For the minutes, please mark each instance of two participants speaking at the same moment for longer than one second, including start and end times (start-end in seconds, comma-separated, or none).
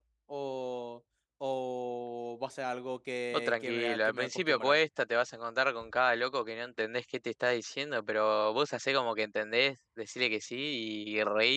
3.3-4.8